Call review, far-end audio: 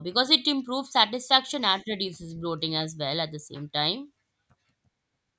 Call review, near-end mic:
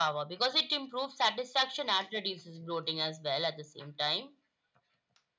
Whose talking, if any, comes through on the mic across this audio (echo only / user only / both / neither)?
echo only